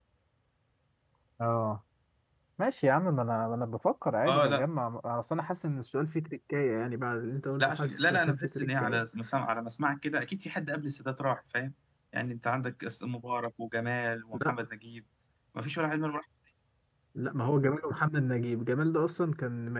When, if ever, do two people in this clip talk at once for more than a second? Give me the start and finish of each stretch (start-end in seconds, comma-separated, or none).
7.6-9.1